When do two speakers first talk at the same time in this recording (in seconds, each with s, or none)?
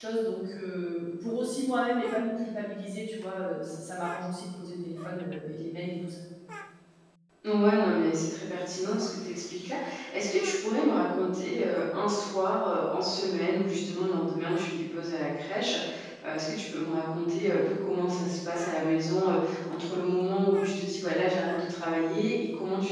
none